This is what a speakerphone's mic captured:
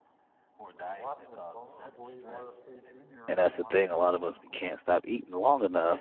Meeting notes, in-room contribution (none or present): present